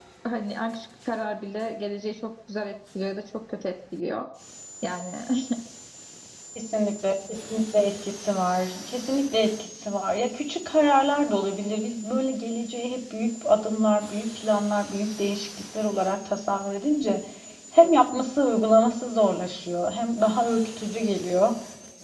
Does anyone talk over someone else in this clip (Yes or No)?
No